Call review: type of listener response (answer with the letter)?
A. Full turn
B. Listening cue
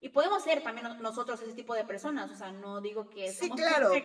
A